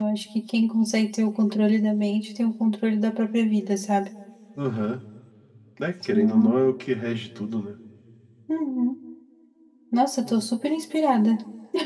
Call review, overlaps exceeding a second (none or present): none